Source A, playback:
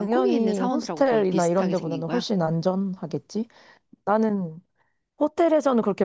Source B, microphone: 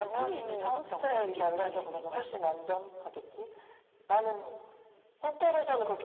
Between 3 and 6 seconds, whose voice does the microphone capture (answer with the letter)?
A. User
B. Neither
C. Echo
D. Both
C